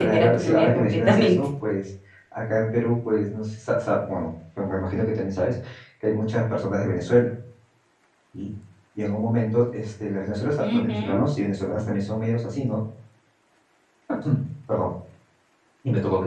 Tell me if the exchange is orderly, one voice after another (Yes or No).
No